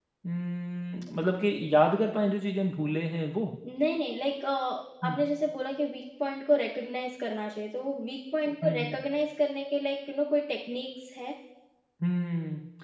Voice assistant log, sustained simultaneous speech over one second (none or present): none